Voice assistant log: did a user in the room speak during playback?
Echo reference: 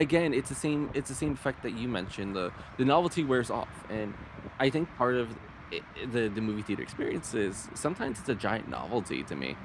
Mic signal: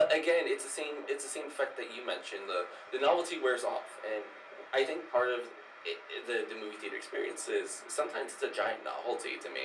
No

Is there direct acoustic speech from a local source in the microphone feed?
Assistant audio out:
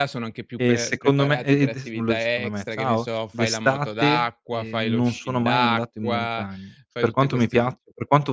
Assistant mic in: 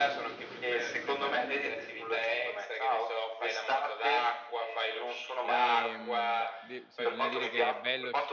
Yes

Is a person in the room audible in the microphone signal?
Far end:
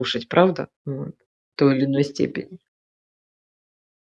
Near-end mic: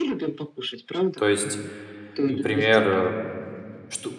Yes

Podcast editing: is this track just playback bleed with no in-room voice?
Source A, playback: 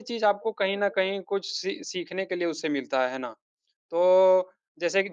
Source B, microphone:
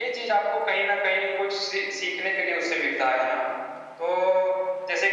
Yes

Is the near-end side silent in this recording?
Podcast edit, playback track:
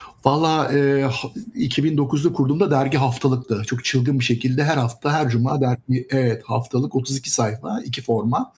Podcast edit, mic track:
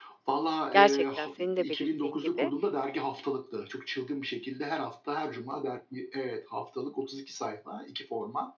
No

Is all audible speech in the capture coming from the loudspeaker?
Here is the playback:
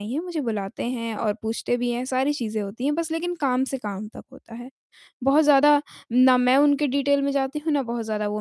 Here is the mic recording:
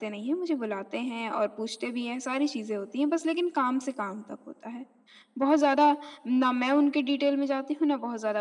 Yes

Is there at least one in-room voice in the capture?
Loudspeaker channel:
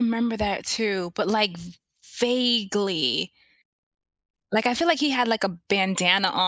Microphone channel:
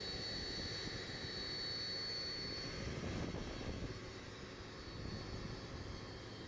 No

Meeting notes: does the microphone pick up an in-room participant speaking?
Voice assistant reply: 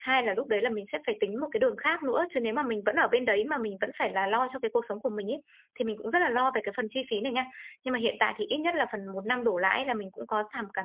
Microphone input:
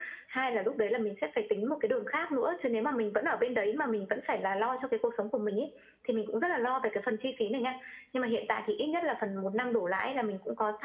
No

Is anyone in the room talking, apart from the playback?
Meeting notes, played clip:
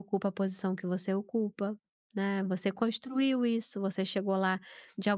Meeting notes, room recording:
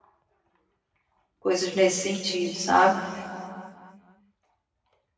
Yes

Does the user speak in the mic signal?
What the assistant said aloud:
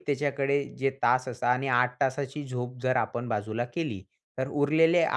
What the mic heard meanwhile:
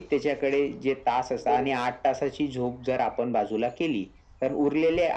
Yes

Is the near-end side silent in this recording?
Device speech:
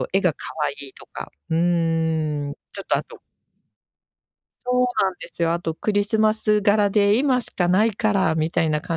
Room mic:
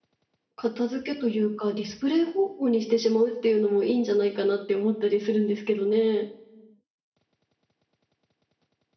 No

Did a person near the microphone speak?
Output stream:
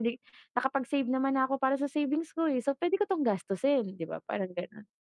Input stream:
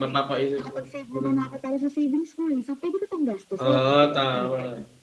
Yes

